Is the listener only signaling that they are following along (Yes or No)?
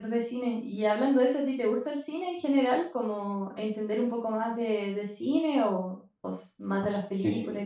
No